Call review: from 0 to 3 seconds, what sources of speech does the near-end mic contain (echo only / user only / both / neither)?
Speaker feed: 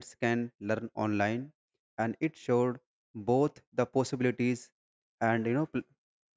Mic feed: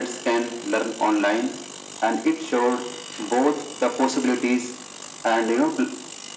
echo only